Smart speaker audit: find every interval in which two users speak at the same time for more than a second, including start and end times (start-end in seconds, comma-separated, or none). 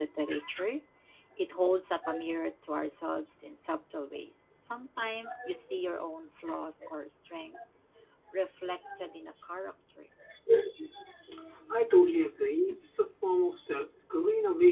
none